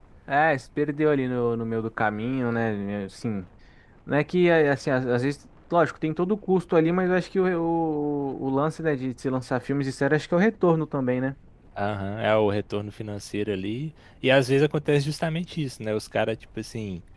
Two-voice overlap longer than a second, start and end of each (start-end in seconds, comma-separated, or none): none